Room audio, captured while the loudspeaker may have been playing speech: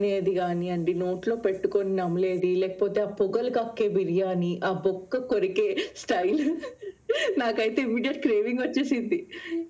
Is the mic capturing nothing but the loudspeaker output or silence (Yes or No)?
Yes